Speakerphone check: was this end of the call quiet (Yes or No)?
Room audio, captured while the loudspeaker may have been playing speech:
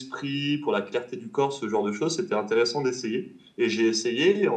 Yes